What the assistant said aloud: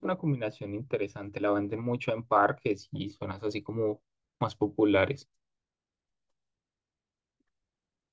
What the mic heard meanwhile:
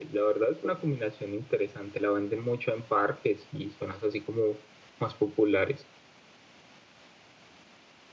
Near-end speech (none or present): none